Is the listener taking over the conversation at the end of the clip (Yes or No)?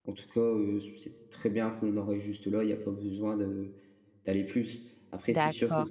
Yes